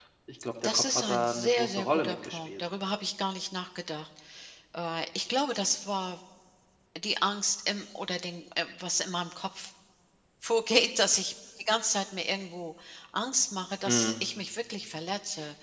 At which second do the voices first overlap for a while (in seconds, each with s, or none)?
0.7 s